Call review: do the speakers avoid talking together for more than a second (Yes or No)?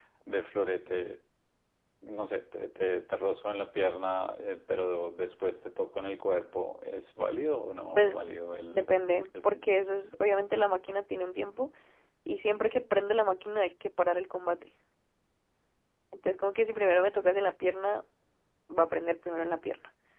Yes